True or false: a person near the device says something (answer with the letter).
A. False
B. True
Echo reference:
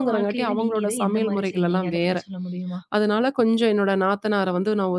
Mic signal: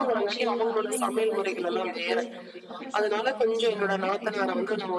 B